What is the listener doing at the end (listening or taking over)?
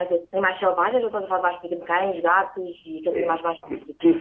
taking over